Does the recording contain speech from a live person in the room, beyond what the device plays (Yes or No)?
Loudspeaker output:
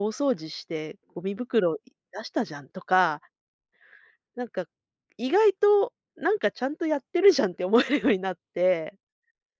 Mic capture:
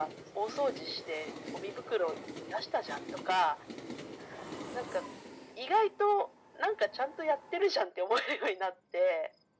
No